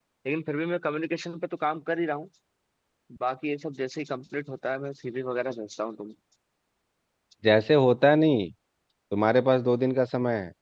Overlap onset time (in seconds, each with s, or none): none